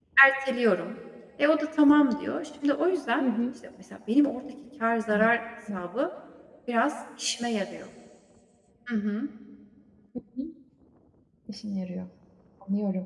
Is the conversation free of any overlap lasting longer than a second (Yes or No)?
Yes